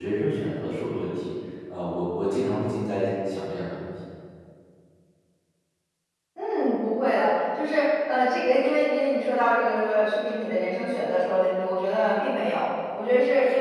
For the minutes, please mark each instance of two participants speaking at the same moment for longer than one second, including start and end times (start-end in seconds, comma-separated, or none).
none